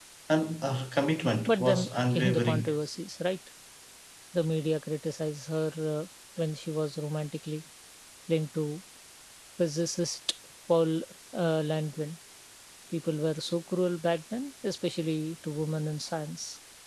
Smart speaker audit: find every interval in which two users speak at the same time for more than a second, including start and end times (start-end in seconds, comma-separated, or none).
1.5-2.7